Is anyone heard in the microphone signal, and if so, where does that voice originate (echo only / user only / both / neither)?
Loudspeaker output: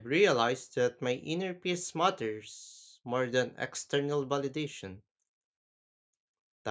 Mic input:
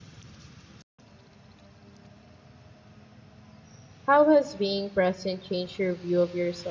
user only